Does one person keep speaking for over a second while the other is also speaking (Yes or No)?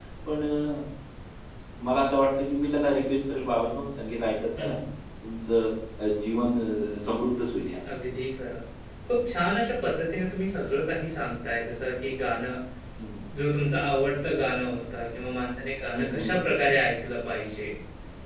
No